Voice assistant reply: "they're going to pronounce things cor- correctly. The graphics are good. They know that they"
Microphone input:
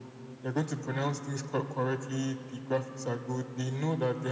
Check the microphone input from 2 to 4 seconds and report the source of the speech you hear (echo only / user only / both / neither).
echo only